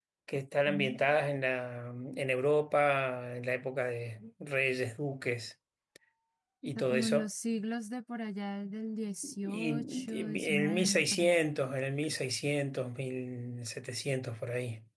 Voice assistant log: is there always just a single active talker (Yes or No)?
No